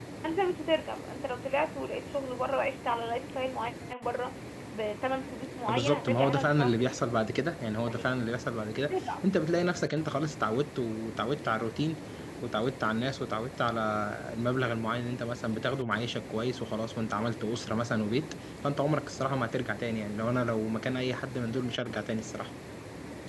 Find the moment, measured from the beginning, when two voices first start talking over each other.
6 s

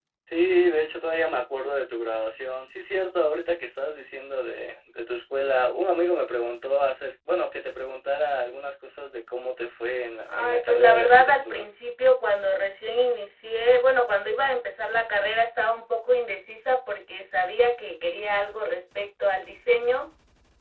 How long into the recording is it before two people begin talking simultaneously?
10 s

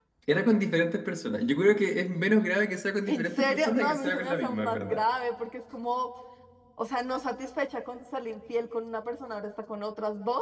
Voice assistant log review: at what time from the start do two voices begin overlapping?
3 s

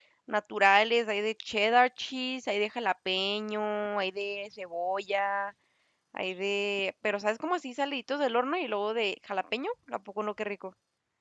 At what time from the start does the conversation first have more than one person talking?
none

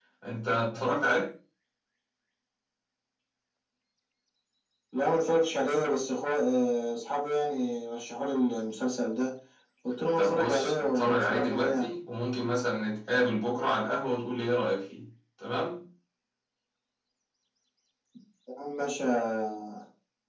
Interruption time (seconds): 10 s

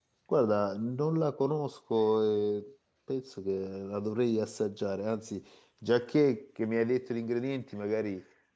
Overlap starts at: none

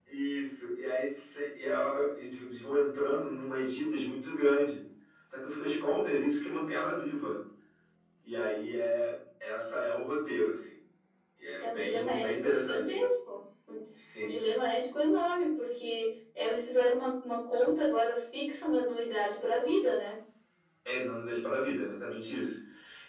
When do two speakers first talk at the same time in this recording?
12 s

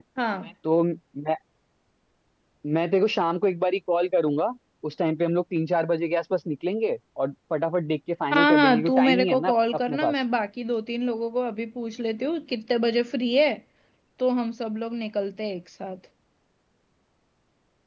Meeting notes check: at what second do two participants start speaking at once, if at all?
8 s

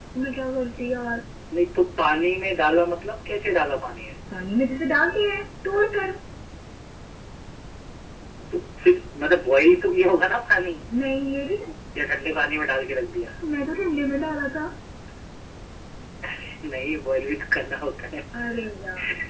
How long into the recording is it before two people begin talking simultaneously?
none

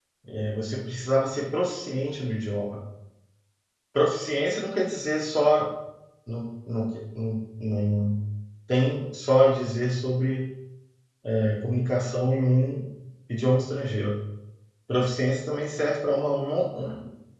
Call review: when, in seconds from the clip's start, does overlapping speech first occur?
none

